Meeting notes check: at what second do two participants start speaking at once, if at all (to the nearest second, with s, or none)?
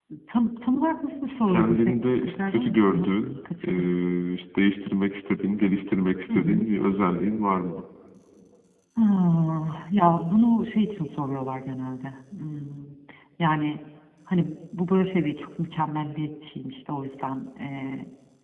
1 s